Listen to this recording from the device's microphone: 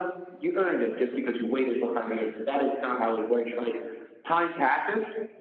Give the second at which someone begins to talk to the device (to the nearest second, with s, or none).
none